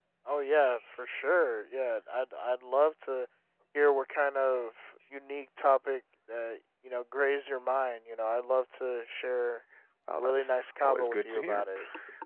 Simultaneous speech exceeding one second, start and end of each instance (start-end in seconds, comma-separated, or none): 10.2-11.6